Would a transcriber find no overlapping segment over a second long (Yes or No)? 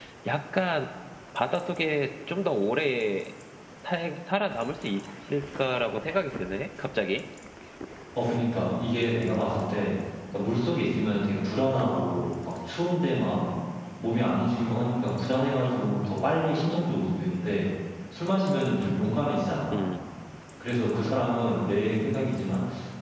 Yes